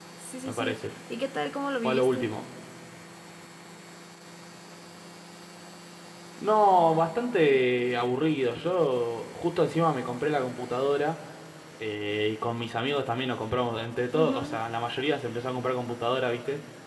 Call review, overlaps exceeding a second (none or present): none